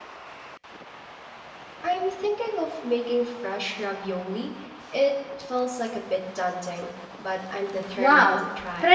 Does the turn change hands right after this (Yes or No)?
Yes